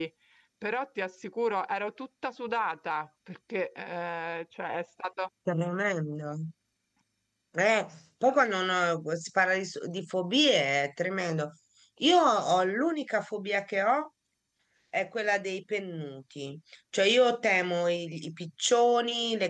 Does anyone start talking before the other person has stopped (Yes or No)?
No